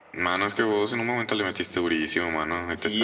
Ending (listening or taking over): taking over